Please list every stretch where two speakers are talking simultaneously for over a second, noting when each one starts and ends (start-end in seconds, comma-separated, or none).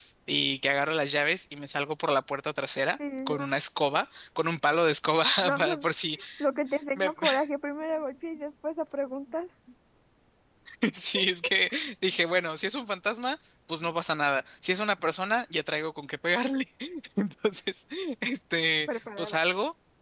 none